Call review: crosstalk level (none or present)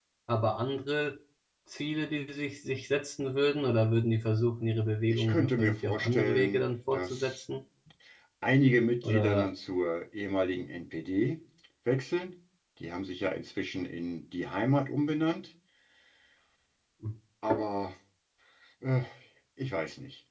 present